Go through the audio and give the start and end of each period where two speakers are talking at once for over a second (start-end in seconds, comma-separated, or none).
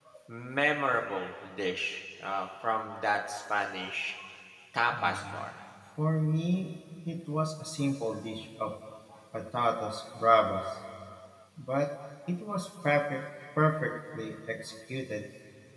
none